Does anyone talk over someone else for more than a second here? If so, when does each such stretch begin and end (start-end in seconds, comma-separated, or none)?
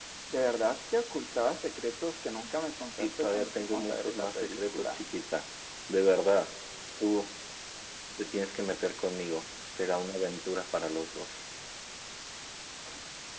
3.0-5.0